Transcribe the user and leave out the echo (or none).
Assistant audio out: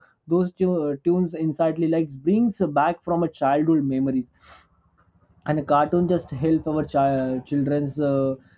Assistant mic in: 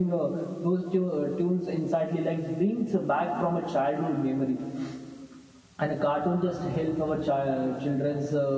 none